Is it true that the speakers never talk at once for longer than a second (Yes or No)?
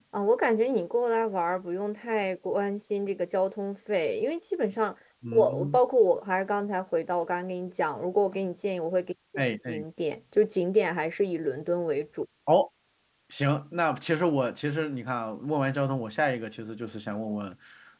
Yes